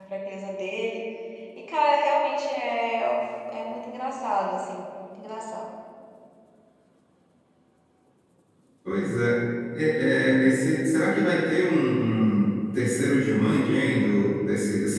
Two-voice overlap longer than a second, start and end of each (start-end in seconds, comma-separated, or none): none